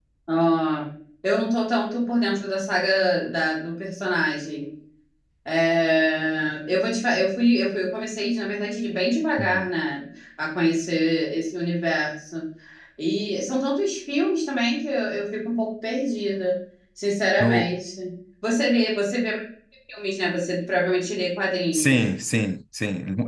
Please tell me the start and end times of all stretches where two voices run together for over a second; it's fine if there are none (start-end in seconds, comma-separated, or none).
none